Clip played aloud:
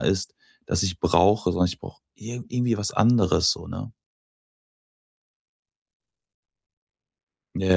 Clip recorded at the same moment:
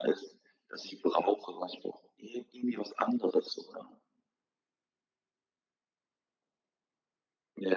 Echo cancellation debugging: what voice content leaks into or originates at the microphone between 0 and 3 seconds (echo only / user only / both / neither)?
echo only